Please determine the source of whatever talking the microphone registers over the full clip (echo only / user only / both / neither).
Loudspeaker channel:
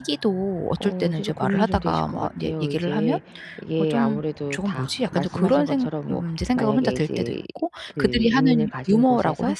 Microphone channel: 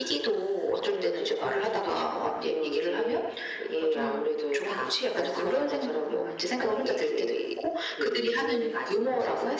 echo only